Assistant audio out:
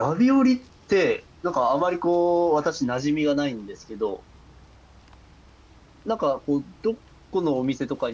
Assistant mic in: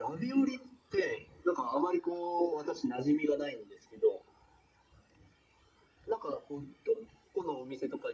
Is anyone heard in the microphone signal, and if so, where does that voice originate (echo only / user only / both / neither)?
echo only